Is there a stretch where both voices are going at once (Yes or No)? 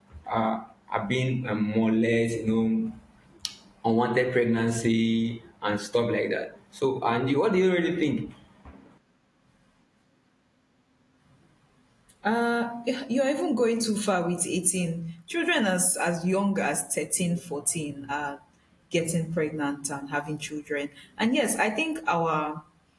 No